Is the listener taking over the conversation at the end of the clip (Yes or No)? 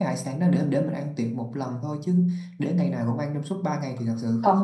Yes